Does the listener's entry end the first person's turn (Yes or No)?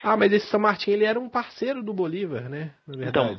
Yes